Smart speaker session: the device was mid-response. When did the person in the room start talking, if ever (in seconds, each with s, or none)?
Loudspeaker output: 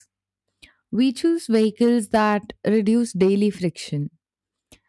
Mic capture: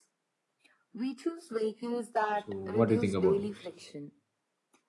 2.3 s